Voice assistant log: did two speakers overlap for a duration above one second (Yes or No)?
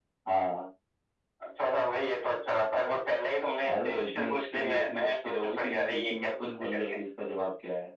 Yes